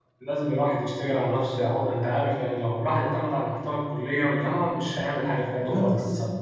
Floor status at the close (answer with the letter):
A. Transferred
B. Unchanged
A